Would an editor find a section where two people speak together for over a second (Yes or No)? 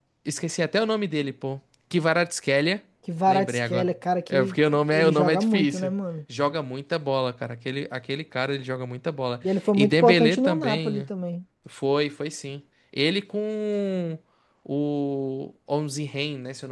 Yes